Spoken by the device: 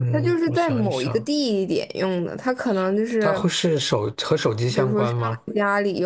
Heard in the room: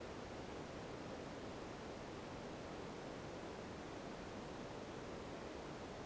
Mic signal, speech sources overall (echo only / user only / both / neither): neither